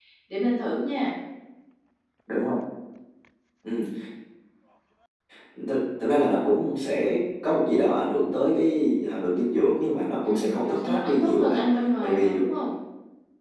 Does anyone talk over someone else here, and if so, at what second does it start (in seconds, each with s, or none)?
10.2 s